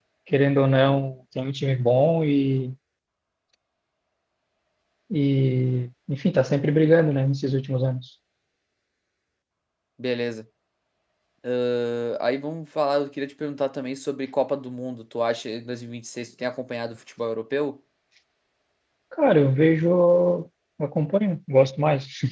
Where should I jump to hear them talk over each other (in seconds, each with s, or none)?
none